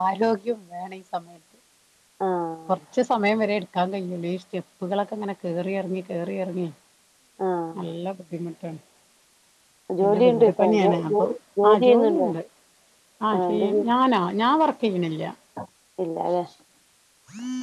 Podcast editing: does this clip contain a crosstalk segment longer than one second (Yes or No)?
Yes